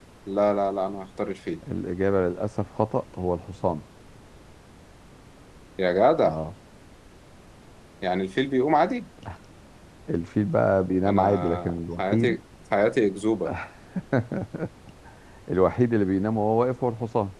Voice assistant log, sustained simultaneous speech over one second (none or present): present